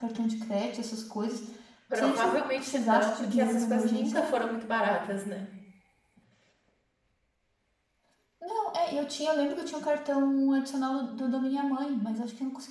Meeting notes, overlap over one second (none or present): present